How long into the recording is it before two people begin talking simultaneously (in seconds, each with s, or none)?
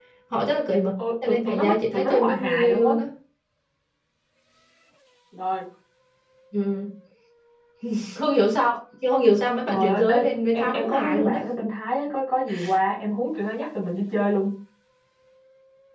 1.0 s